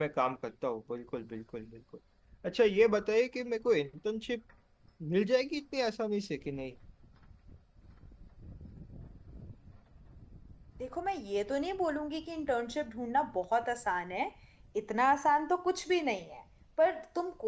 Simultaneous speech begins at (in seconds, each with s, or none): none